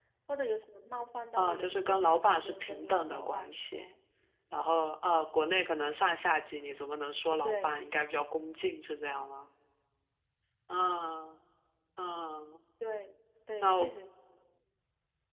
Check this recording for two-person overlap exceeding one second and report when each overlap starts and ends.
1.4-3.9

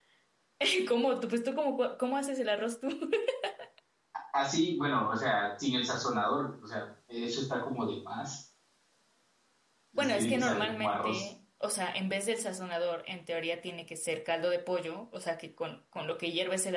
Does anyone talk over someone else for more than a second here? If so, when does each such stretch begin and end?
9.9-11.2

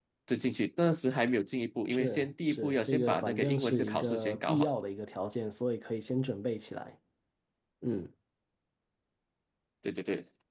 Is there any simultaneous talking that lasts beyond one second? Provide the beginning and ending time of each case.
1.9-4.7

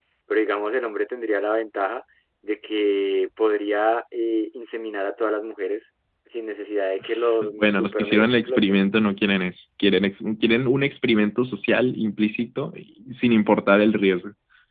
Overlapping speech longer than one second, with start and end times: 7.6-8.8

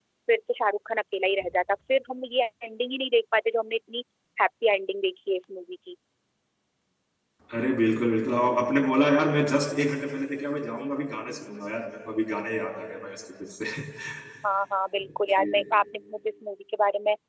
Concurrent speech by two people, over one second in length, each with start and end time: none

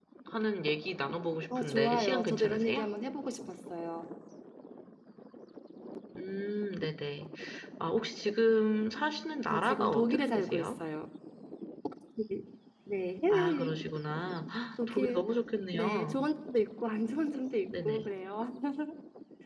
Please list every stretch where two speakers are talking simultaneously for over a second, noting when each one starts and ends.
1.6-2.9, 9.5-10.7

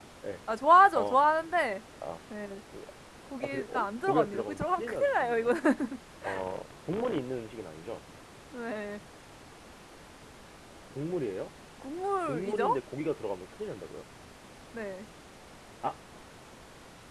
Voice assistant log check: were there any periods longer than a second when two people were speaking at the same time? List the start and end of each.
3.4-5.5

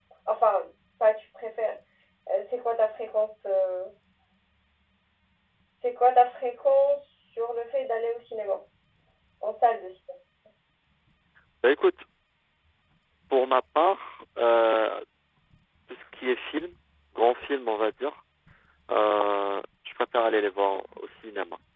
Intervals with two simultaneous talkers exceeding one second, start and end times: none

